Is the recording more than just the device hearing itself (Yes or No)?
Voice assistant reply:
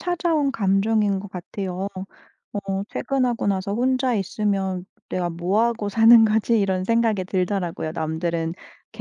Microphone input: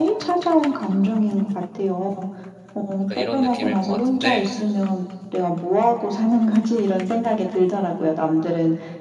Yes